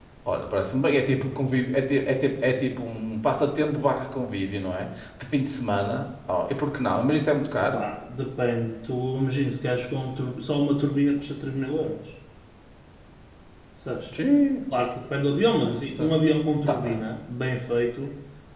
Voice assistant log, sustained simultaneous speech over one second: none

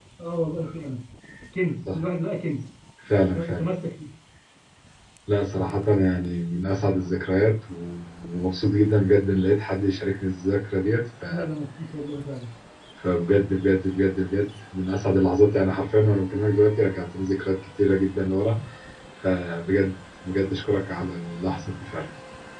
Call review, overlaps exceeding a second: none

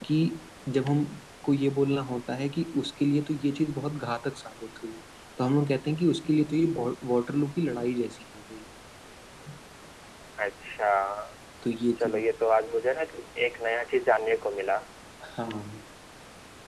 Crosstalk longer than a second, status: none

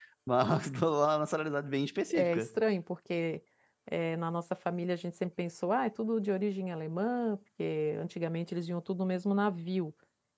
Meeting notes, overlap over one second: none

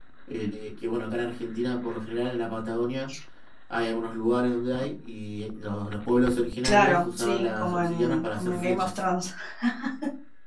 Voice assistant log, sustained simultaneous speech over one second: present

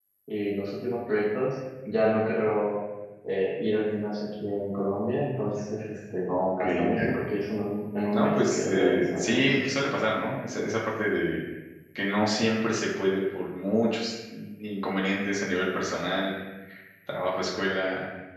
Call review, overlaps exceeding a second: present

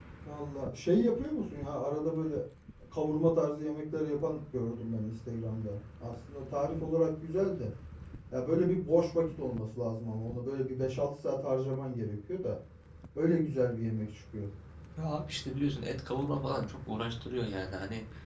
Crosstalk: none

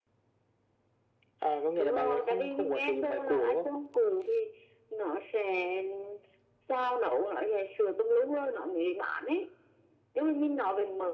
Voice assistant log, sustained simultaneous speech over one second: present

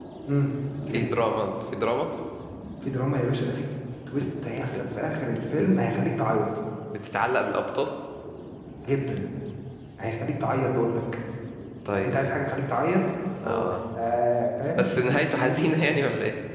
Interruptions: present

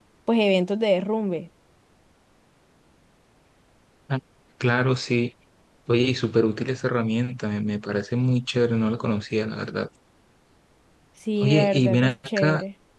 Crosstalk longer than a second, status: present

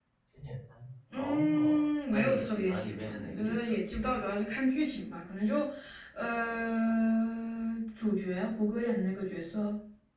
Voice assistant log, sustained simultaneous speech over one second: present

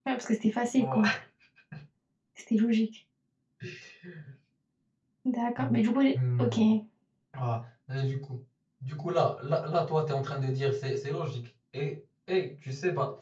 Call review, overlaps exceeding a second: none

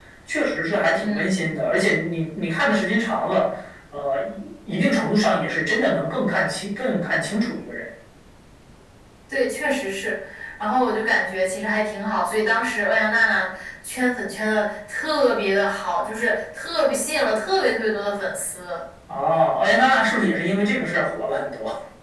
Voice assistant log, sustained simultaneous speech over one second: none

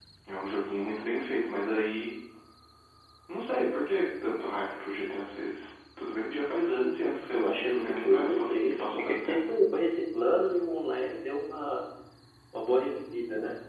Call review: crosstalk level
present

